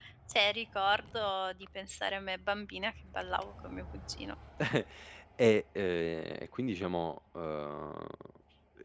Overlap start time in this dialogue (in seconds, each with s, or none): none